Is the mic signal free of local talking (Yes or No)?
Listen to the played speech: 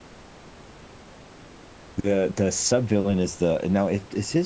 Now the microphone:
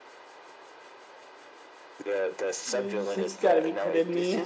No